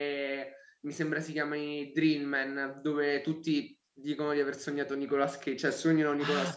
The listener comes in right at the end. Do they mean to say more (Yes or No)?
Yes